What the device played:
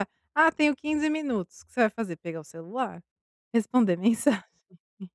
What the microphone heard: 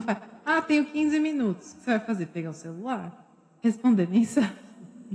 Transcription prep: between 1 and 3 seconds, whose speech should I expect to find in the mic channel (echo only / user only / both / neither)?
echo only